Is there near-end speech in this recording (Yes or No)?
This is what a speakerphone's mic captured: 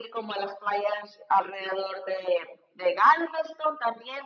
No